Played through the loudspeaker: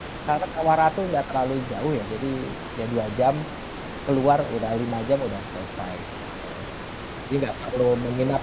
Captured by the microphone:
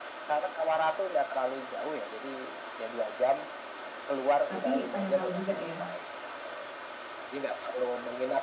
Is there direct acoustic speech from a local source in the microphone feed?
Yes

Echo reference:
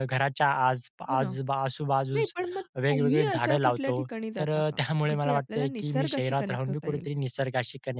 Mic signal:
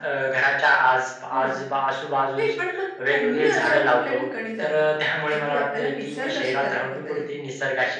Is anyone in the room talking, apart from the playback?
No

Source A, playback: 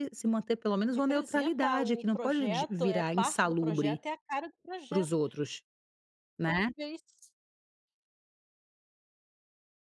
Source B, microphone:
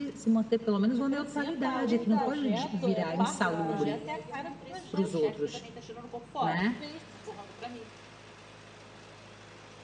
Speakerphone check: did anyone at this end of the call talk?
Yes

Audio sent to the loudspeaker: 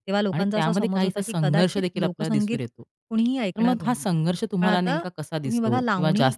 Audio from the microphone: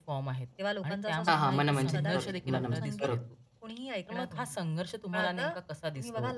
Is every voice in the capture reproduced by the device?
No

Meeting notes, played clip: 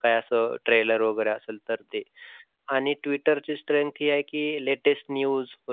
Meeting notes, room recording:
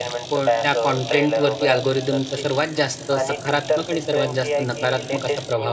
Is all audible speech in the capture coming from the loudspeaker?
No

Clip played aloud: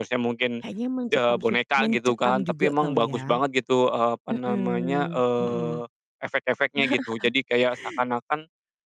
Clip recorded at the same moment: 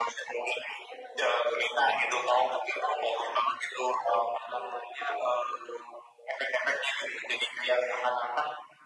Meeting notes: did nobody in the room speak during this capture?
Yes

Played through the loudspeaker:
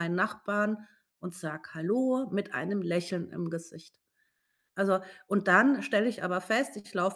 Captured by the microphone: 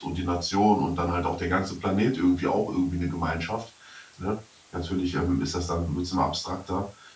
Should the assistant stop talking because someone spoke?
Yes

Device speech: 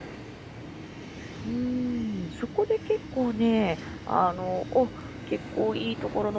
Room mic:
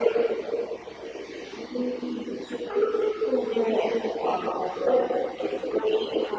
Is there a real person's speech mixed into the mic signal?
No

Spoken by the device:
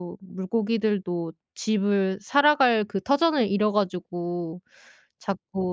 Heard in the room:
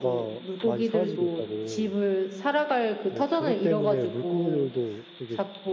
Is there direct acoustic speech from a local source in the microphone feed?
Yes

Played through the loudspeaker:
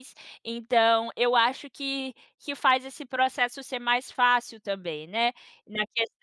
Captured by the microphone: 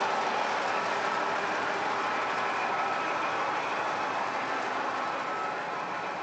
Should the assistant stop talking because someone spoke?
No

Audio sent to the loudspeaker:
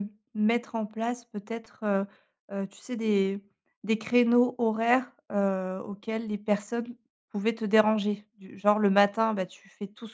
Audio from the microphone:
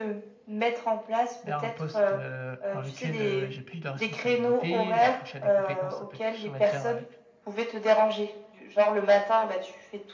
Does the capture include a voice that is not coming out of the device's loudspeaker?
Yes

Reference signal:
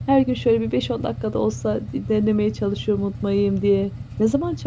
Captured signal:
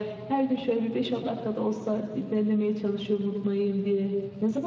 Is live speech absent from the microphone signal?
Yes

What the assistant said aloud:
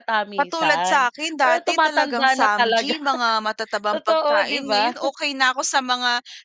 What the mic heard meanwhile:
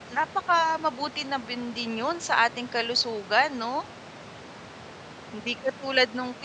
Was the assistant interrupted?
Yes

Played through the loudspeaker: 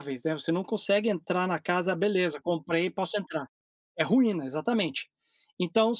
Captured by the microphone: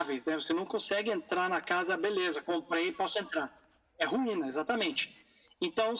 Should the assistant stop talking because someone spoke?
No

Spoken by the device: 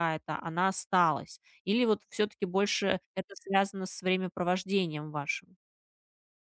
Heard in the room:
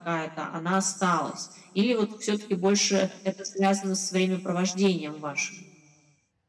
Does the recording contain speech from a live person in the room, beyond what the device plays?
No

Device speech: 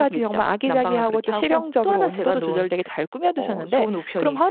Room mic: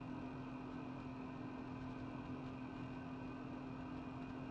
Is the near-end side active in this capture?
No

